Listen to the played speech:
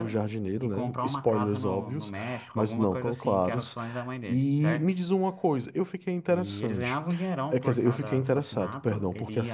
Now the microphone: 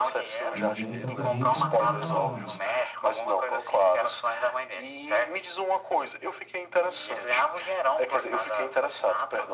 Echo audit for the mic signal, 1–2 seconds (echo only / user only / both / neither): both